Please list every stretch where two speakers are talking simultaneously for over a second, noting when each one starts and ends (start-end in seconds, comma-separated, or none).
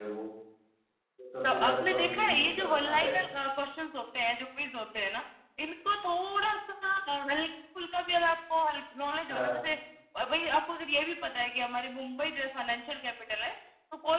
1.4-3.1